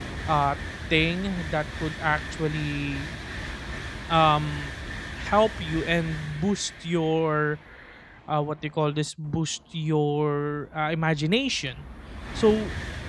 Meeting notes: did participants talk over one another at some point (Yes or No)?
No